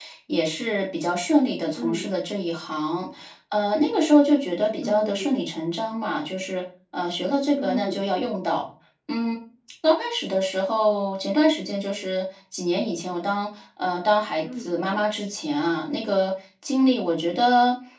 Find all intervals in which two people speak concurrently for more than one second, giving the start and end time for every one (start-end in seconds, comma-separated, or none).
none